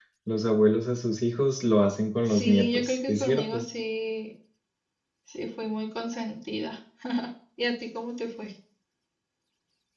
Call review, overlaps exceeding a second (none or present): present